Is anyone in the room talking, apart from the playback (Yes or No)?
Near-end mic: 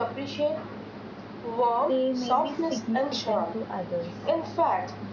Yes